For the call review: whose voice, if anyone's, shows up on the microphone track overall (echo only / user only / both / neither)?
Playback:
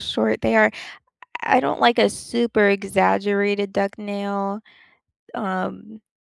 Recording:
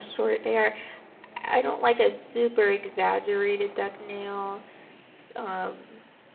echo only